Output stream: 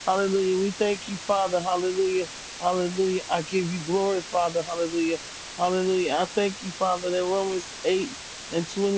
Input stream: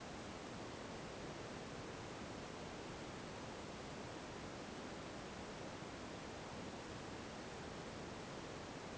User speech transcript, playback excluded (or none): none